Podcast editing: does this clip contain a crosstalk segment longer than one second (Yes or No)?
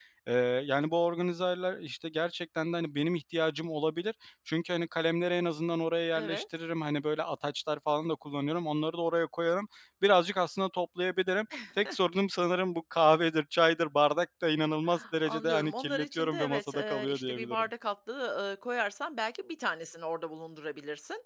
Yes